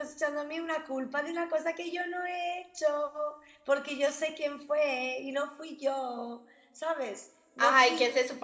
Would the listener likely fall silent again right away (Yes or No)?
No